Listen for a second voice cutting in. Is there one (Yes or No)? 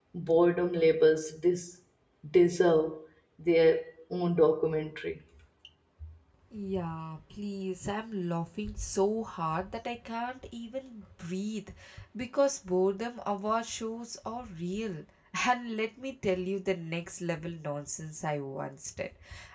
No